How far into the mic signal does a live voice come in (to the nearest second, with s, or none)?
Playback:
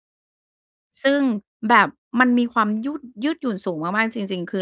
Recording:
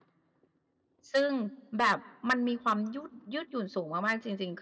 none